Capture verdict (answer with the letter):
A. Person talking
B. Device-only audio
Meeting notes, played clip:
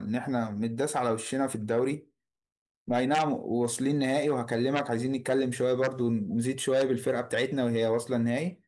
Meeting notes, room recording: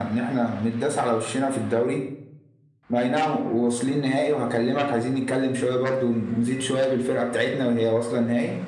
B